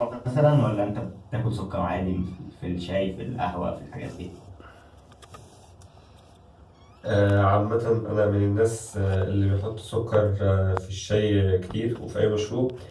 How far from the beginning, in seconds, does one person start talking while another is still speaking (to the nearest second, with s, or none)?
none